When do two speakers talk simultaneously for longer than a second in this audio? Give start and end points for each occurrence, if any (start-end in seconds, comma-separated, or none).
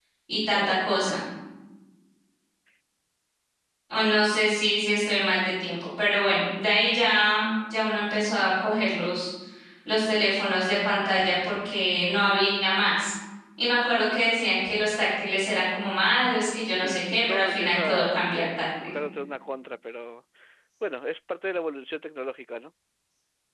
16.8-18.9